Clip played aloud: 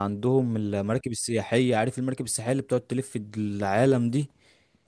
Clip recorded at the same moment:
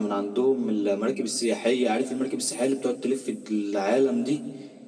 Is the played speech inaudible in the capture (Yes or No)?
No